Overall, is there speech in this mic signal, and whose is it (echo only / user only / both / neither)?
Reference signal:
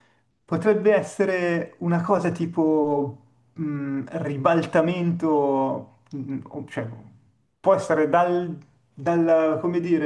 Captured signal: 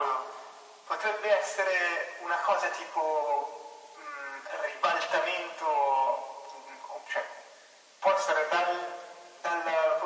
echo only